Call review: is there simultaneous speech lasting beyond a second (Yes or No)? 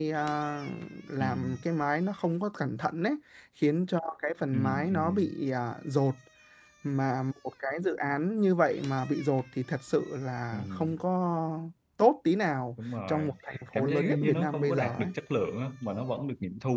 Yes